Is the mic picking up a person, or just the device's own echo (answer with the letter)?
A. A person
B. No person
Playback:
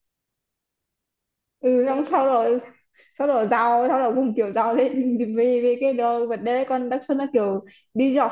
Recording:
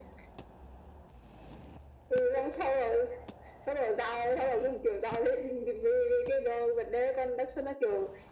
B